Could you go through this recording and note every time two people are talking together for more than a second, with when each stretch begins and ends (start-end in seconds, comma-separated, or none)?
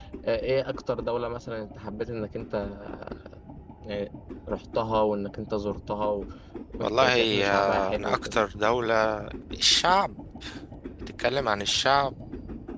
6.8-8.3